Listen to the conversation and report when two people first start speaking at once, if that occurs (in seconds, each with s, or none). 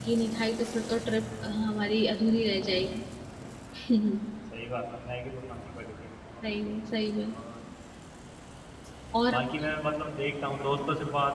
none